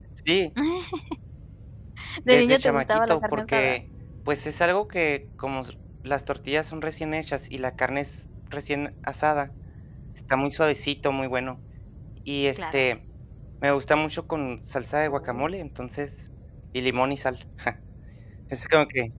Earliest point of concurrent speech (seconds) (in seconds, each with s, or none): 2.3 s